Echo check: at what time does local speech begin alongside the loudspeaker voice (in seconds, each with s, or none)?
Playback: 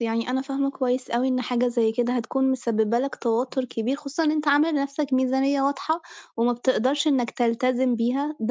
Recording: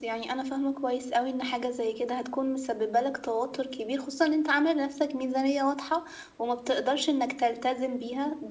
none